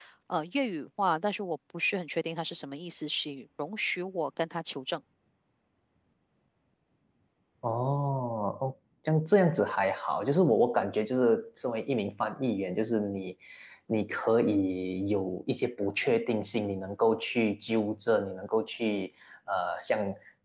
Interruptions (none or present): none